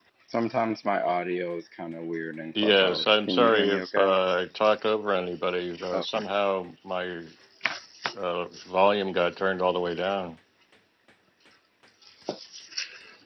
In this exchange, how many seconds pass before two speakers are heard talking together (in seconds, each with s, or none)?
2.6 s